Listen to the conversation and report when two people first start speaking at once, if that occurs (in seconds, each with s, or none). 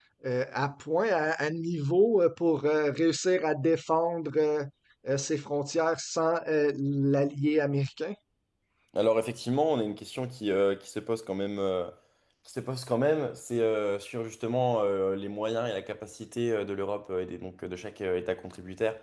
none